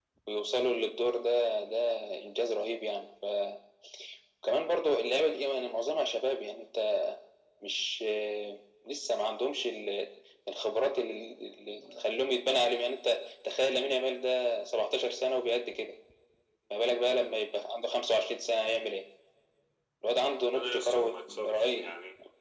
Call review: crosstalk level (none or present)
present